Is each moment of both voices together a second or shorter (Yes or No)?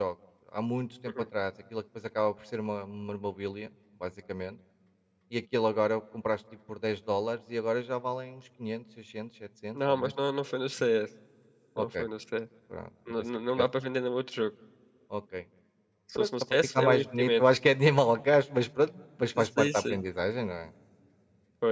No